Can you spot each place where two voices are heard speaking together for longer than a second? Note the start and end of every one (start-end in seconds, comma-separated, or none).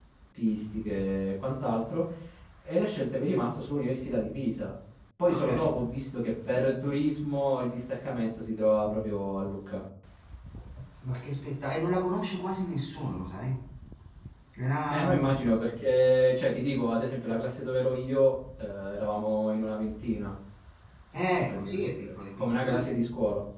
21.5-22.9